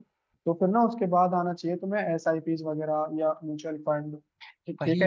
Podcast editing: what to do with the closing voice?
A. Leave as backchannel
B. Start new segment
B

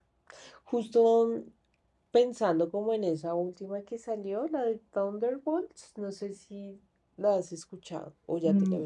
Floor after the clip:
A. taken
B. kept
A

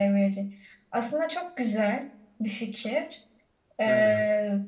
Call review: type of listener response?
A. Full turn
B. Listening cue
B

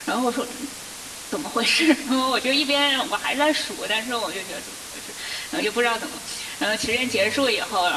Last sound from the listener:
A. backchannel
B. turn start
A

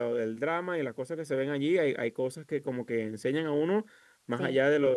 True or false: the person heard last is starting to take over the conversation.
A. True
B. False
B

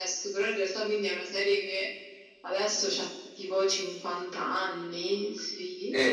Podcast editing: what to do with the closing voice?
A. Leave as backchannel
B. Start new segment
B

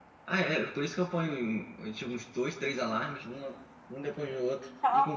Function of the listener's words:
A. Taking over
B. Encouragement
A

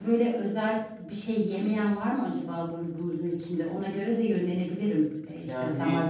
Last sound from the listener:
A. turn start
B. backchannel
B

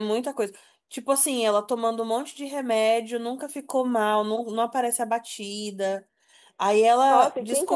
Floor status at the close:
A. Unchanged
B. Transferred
B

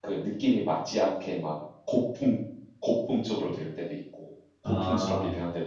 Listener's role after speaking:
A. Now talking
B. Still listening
B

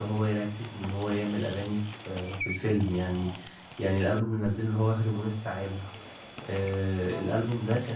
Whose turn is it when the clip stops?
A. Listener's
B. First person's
B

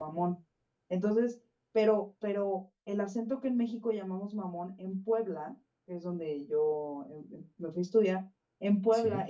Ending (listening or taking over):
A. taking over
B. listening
B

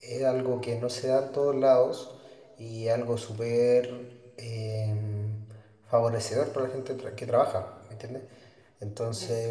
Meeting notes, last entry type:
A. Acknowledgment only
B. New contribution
A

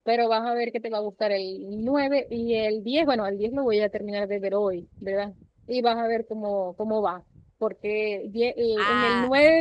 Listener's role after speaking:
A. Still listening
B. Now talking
A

